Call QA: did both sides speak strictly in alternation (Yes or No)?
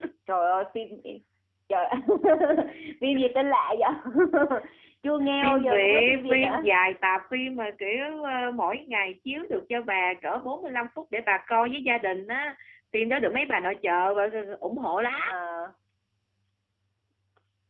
No